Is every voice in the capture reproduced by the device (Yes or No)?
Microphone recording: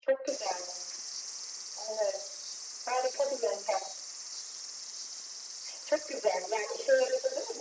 Yes